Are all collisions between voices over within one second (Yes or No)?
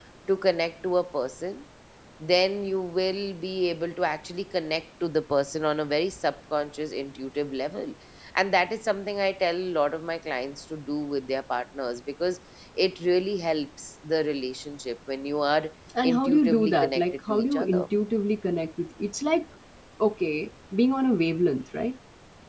No